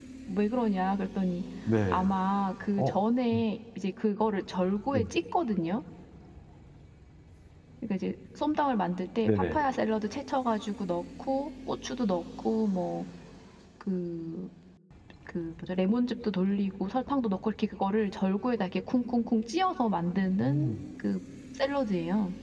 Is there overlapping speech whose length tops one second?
No

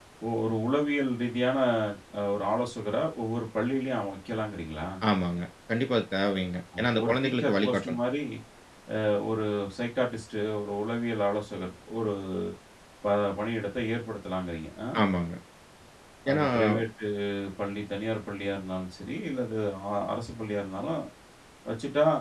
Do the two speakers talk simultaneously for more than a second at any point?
Yes, from 6.8 s

